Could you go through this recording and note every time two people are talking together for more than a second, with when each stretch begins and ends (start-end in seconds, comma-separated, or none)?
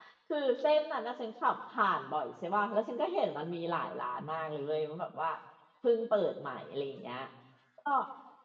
none